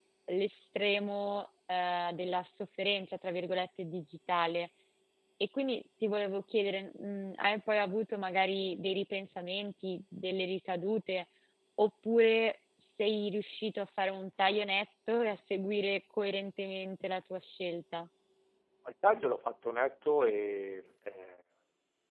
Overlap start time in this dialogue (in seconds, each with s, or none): none